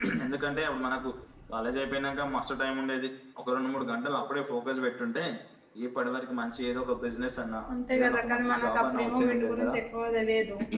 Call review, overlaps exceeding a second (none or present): present